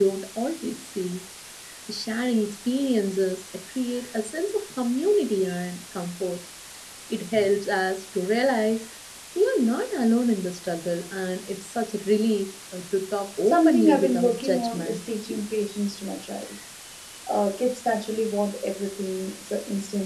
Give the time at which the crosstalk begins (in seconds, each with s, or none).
13.4 s